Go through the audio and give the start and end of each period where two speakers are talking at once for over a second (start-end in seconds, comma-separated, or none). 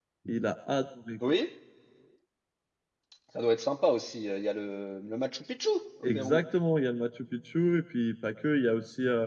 none